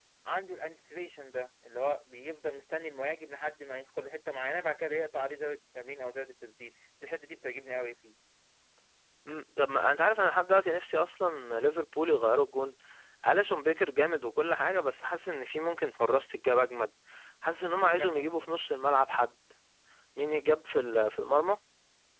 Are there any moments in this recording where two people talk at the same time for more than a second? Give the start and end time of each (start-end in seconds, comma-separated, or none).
none